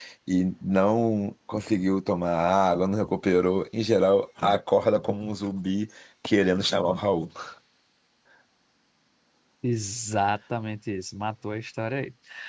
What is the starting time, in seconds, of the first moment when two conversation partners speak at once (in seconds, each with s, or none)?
none